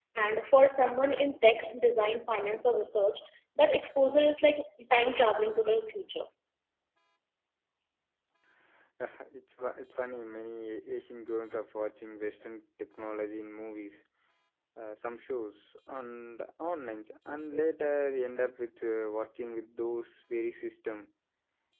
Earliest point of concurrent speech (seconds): none

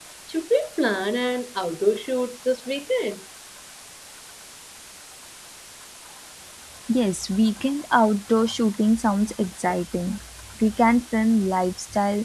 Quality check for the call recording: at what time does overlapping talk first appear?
none

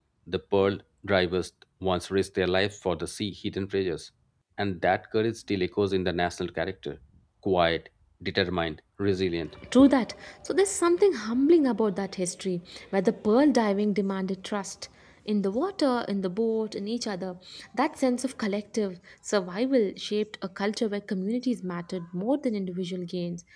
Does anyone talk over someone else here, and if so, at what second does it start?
none

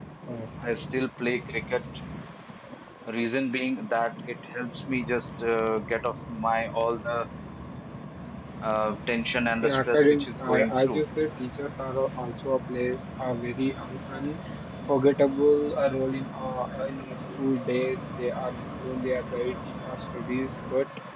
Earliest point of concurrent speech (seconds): 9.6 s

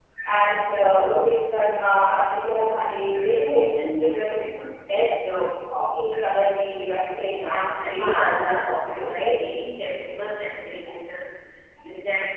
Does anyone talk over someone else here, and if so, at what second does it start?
7.2 s

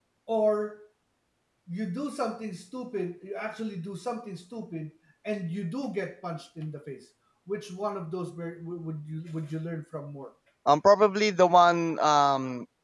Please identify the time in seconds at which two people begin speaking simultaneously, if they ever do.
none

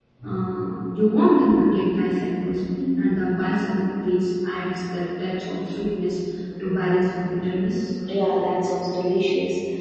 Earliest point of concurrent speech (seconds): none

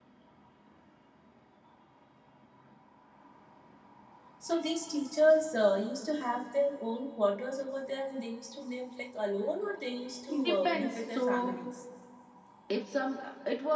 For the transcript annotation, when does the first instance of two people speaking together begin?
10.3 s

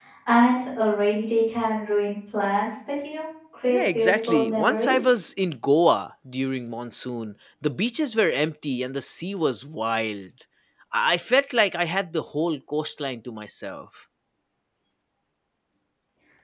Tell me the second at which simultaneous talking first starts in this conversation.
3.7 s

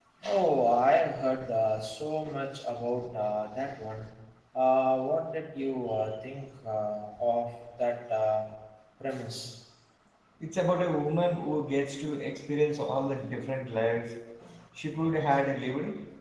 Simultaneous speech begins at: none

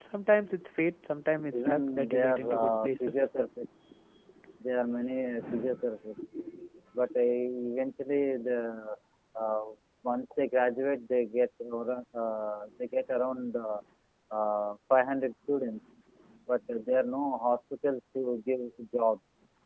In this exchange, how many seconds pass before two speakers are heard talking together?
1.6 s

